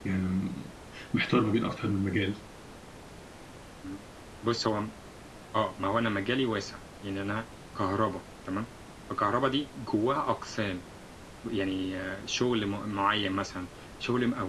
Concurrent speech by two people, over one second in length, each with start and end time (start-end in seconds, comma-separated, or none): none